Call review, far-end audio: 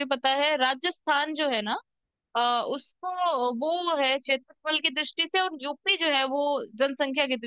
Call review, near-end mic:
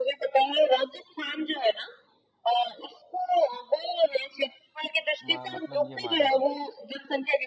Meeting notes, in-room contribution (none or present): present